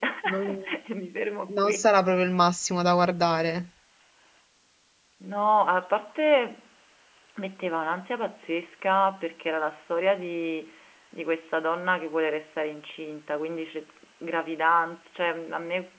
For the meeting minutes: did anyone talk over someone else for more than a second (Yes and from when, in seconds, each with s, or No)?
No